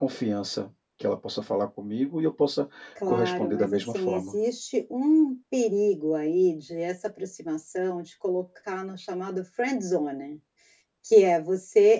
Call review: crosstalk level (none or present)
present